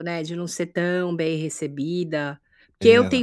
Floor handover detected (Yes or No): No